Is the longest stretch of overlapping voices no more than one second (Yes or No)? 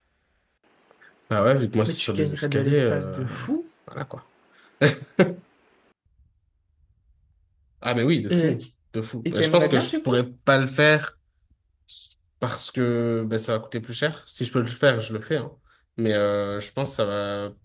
No